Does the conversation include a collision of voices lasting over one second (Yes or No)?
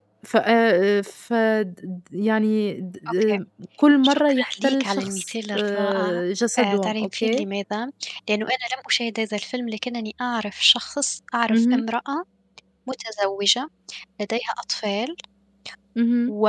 Yes